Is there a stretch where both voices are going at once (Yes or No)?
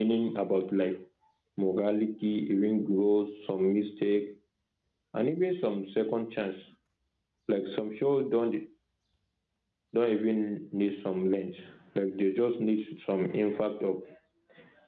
No